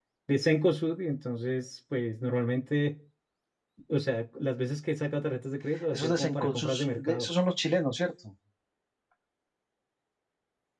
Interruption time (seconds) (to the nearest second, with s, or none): 6 s